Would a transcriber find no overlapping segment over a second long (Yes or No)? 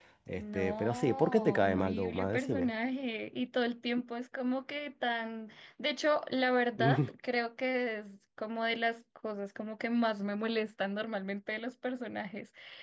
No